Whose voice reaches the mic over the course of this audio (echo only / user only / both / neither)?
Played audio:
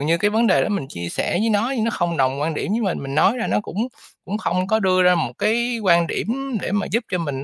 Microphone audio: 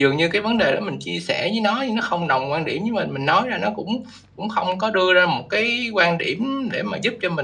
echo only